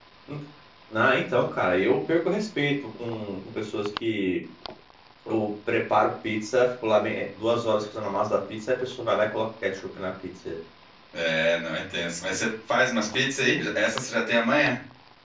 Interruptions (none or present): none